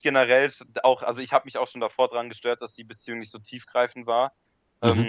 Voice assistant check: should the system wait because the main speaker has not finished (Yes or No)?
Yes